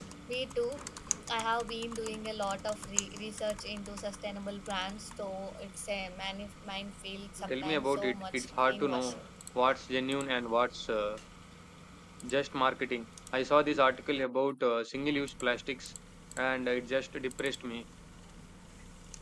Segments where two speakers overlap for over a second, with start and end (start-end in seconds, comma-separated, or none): 7.5-9.2